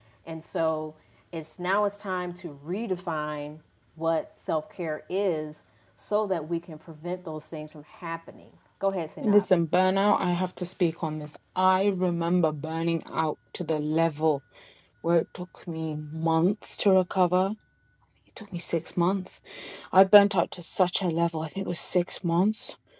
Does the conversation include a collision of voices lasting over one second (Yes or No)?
No